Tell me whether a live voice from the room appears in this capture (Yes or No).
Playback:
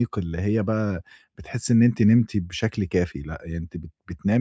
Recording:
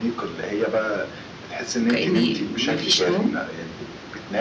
Yes